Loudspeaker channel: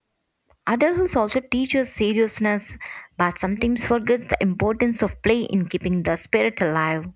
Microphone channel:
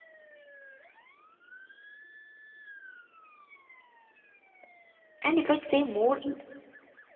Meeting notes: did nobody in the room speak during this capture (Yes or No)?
No